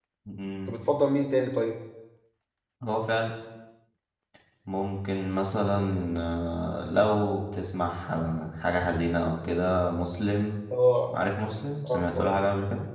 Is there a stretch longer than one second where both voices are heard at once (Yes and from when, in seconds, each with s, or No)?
No